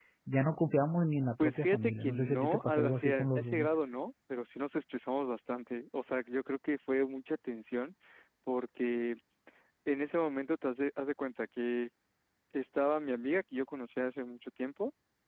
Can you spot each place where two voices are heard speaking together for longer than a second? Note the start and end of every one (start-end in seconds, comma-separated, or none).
1.4-3.7